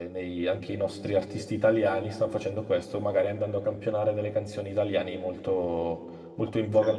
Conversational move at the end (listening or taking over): listening